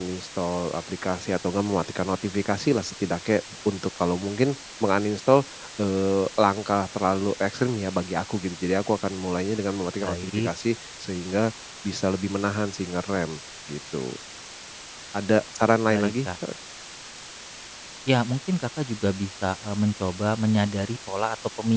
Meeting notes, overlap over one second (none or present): none